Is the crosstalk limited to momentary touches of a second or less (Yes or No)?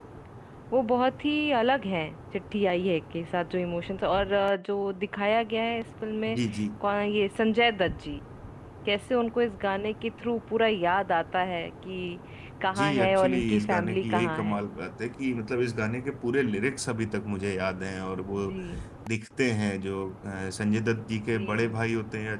No